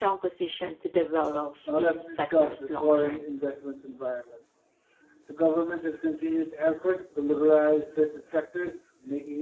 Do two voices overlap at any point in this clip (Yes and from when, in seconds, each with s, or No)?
Yes, from 1.7 s